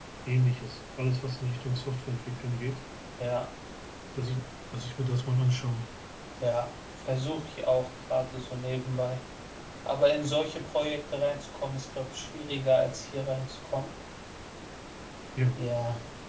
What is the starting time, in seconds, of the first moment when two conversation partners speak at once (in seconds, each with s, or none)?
none